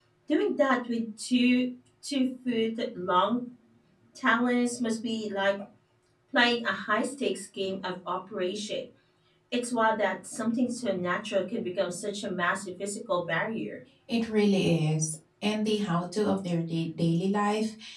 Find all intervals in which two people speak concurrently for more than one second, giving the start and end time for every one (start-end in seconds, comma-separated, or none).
none